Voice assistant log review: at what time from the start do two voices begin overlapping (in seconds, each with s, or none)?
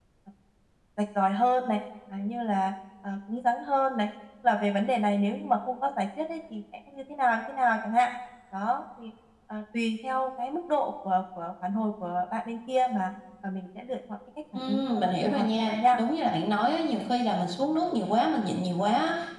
14.6 s